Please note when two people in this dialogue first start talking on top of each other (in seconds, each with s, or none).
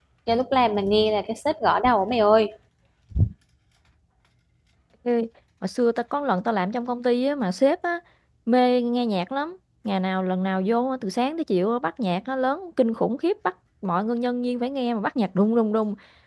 none